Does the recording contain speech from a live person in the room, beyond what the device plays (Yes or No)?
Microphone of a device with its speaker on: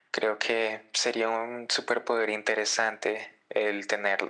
No